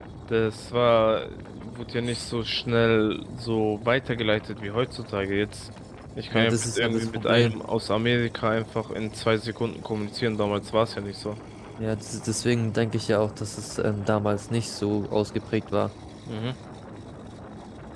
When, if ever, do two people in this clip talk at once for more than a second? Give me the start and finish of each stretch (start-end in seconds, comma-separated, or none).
6.3-7.6